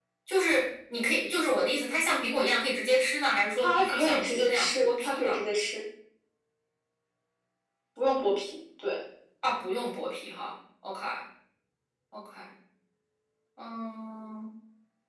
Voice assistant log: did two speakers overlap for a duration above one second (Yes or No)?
Yes